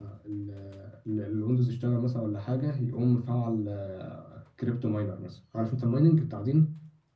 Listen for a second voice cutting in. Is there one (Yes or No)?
No